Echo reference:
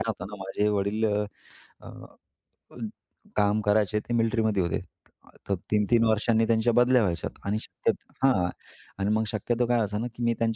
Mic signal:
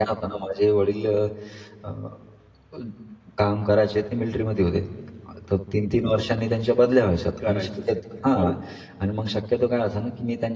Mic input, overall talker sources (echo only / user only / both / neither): both